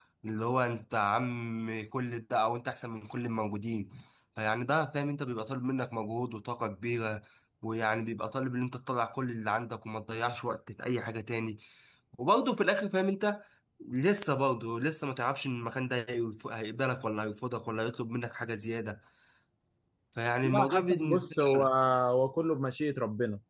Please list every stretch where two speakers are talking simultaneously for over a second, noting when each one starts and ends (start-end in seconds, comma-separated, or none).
20.4-21.6